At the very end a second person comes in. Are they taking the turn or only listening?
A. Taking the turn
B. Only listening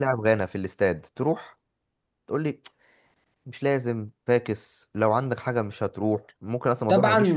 A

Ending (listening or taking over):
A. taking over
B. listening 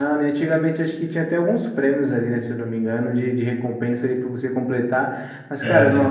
B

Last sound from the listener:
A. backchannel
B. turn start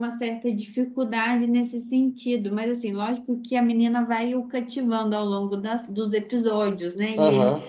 A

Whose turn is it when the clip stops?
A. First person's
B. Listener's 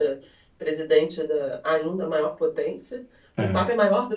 A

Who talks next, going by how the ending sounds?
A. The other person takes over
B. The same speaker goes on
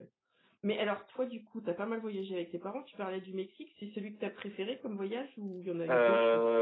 A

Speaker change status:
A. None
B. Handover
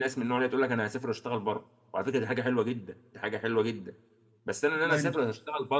A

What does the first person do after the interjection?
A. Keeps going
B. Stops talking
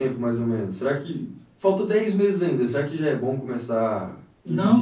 B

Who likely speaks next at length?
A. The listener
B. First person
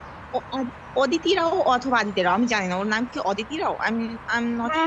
A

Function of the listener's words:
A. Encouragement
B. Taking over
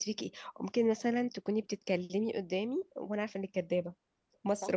A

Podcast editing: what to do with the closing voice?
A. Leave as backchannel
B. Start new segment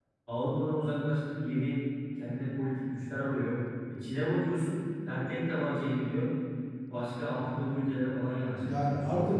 B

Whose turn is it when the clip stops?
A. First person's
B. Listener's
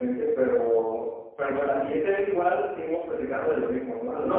B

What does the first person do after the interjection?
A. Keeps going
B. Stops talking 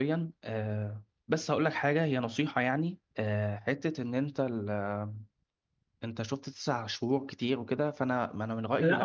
B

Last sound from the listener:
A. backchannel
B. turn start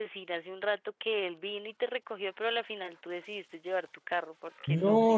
B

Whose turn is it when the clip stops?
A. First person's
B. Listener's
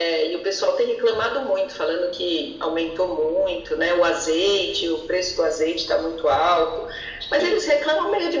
A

